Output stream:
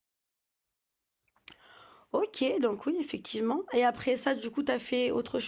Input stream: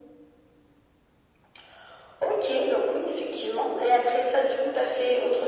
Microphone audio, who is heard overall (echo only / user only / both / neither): echo only